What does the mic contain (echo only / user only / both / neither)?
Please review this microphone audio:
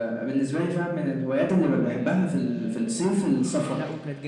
both